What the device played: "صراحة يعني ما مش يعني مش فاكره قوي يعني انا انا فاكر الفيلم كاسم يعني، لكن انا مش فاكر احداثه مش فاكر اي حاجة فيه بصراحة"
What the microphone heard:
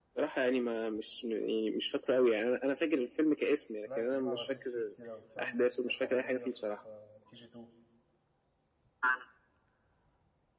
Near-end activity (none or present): present